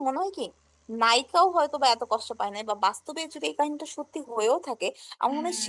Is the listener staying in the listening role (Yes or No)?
Yes